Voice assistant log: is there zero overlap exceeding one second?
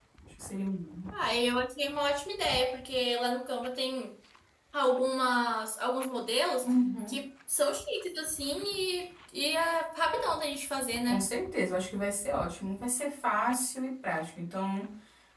Yes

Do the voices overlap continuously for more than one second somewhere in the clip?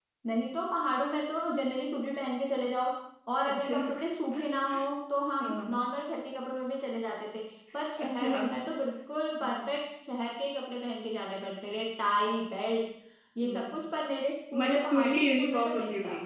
Yes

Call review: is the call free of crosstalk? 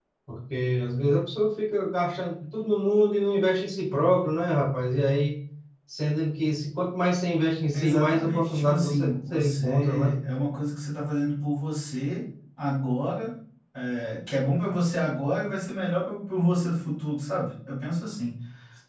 No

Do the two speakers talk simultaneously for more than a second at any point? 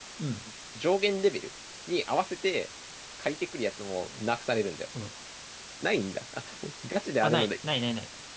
No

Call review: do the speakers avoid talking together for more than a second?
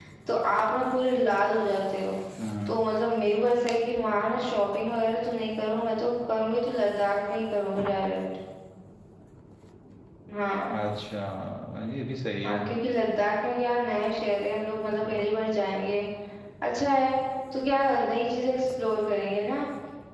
Yes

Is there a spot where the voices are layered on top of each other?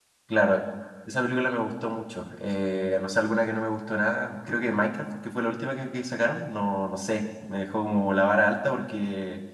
No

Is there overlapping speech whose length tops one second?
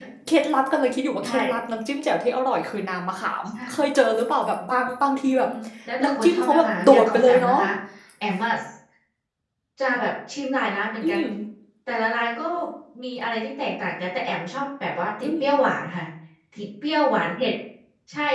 Yes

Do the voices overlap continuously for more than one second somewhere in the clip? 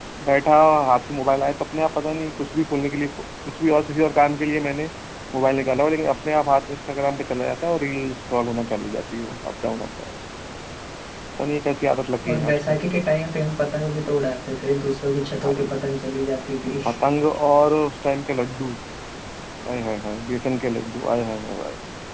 No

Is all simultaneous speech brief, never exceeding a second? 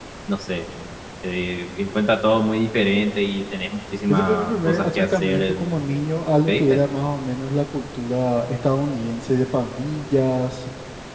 No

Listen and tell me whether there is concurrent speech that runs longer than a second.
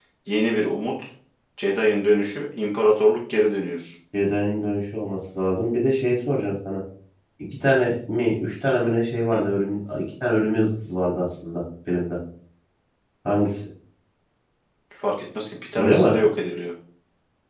No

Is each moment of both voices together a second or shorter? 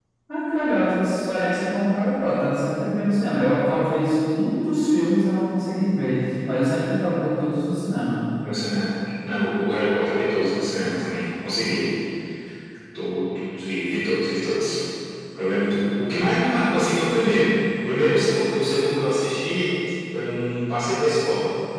Yes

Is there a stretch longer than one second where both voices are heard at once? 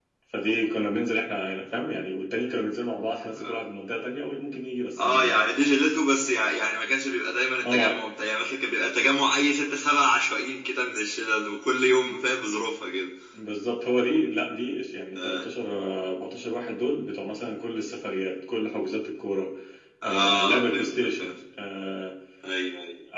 Yes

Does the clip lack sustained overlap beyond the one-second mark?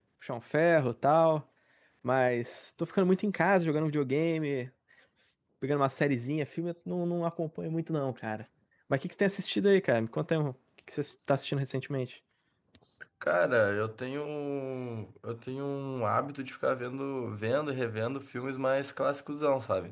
Yes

